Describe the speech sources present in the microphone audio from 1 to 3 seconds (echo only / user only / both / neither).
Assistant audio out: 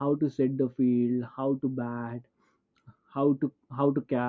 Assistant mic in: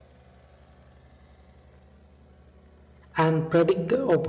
neither